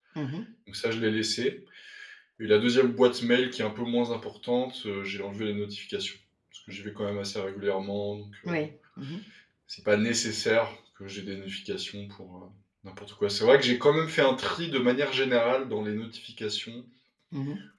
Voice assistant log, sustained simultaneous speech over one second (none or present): none